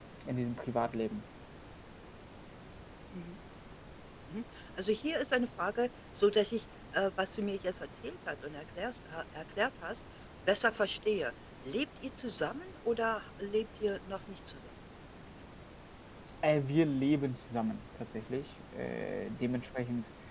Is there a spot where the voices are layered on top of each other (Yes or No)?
No